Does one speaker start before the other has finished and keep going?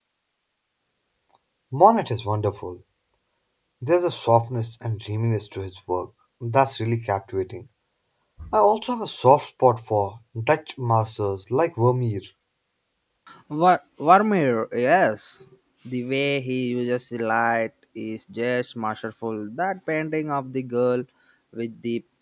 No

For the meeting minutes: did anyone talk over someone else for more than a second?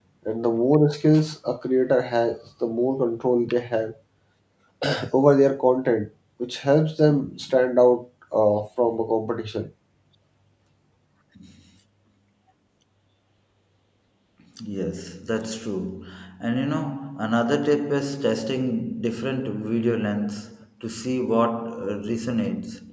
No

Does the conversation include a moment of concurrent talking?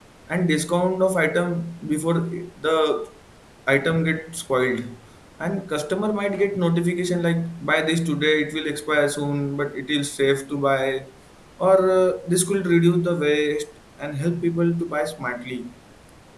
No

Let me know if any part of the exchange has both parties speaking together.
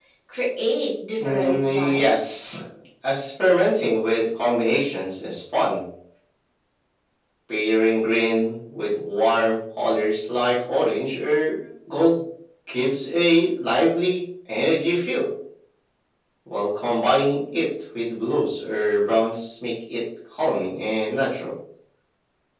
Yes, from 1.2 s

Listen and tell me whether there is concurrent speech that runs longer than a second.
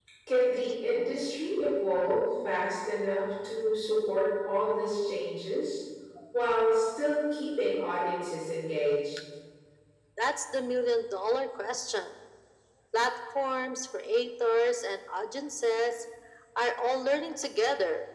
No

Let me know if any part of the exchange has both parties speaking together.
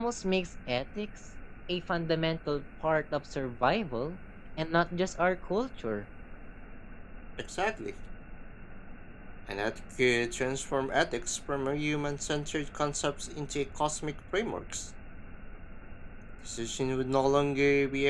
No

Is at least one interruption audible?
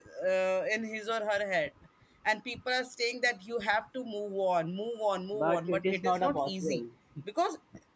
Yes, from 5.3 s

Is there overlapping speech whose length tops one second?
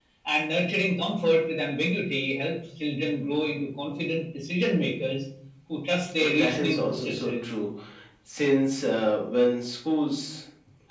Yes, from 6.2 s

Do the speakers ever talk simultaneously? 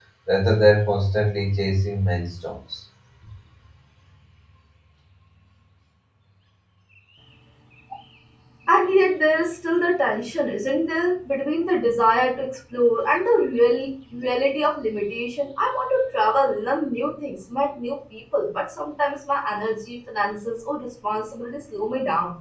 No

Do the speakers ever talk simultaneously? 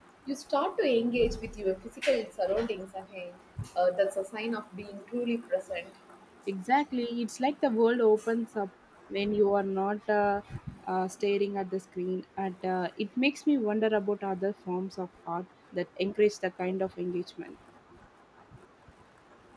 No

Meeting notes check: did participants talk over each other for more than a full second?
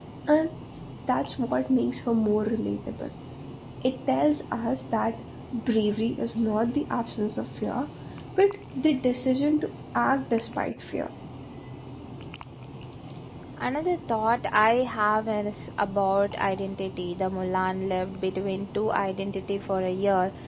No

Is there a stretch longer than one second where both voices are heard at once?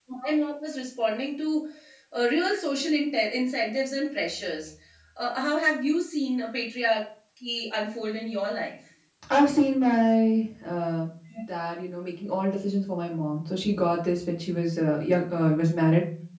No

